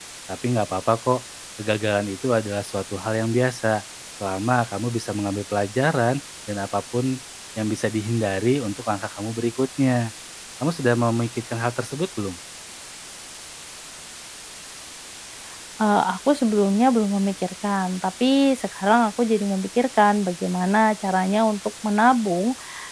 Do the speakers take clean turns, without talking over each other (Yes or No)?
Yes